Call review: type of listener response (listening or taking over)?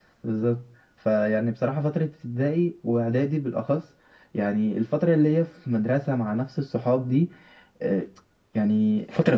listening